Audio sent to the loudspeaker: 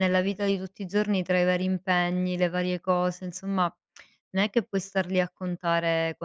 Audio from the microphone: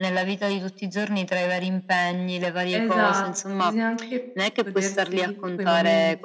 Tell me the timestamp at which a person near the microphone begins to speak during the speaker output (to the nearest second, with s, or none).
3 s